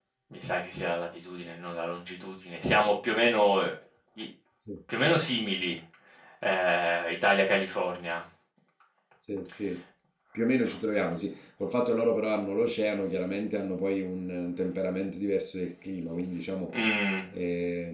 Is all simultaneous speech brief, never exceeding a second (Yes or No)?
Yes